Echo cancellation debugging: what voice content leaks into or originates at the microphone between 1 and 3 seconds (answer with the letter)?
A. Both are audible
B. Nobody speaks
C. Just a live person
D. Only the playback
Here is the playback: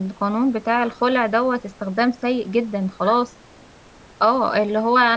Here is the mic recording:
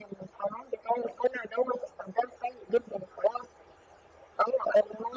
D